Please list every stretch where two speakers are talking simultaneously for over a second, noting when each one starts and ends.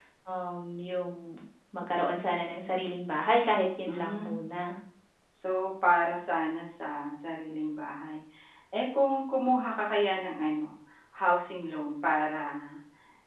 none

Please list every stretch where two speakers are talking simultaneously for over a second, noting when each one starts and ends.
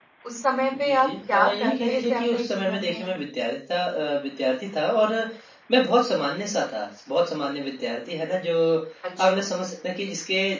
0.8-3.1

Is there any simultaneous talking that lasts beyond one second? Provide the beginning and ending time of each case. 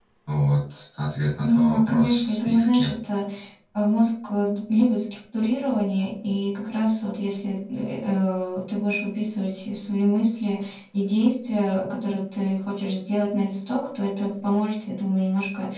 1.4-2.9

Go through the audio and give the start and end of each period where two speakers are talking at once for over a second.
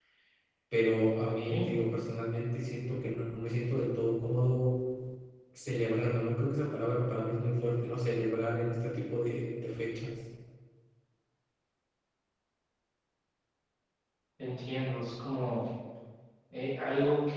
none

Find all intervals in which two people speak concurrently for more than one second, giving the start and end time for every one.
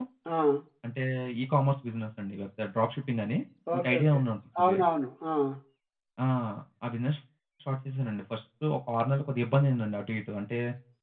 none

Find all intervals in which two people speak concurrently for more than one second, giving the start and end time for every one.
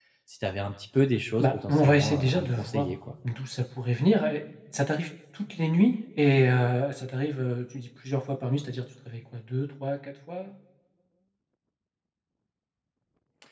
1.4-2.9

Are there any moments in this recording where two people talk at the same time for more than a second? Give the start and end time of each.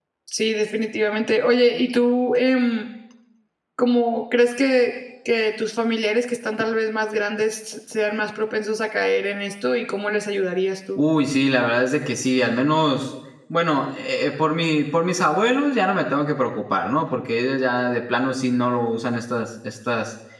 none

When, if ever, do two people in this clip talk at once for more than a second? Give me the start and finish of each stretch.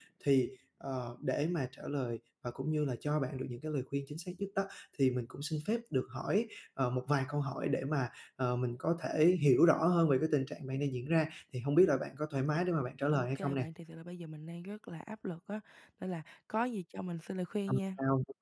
none

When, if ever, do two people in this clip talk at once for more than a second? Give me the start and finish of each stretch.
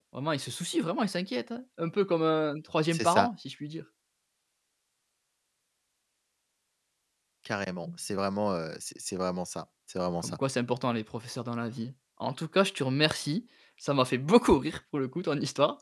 none

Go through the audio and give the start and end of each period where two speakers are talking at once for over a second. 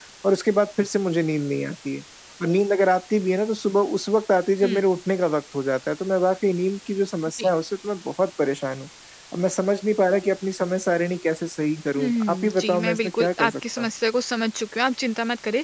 12.0-13.9

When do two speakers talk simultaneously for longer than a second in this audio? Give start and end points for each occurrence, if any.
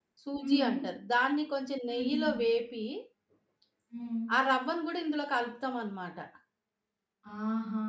none

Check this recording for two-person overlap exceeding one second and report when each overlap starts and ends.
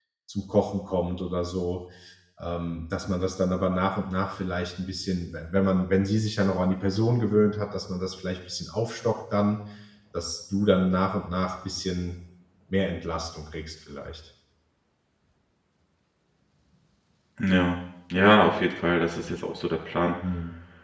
none

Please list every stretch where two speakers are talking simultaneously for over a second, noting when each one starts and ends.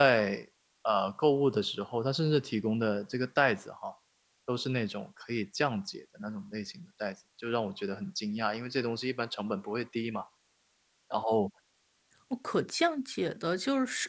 none

